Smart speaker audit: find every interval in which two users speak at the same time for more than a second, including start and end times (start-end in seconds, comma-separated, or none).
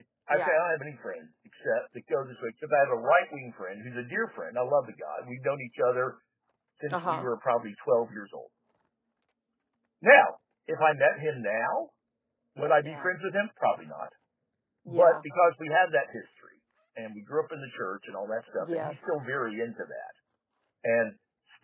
none